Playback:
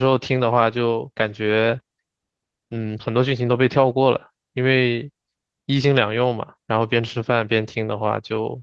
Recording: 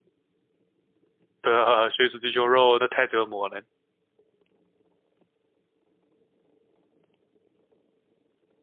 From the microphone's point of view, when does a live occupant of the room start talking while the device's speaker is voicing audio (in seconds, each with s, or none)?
1.4 s